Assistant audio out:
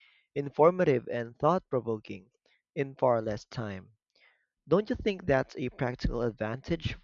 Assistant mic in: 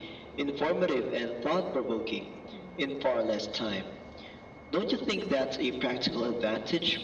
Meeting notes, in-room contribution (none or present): none